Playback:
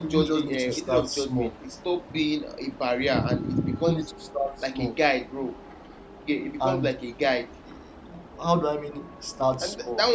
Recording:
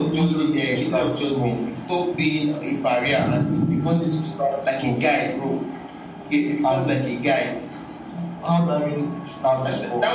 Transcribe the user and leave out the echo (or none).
none